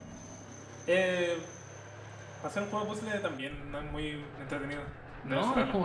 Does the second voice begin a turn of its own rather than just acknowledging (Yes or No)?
Yes